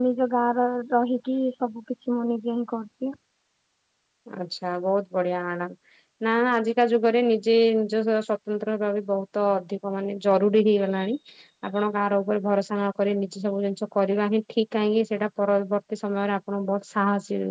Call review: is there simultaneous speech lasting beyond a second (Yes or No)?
No